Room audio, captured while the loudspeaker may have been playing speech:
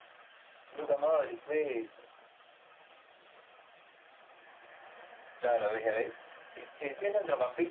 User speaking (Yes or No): No